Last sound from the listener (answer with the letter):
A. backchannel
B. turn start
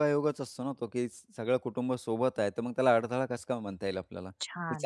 B